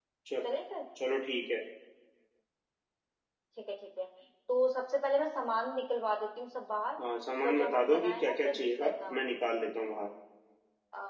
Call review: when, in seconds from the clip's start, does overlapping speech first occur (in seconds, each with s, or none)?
7.4 s